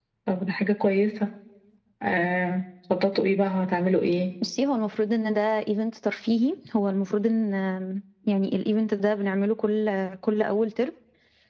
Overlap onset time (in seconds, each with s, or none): none